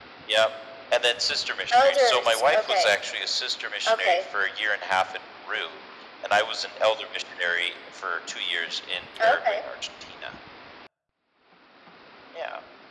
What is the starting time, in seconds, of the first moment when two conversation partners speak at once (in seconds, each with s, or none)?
1.7 s